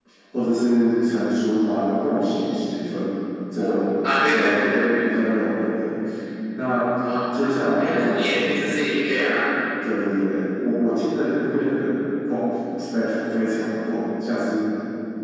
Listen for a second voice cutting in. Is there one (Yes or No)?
Yes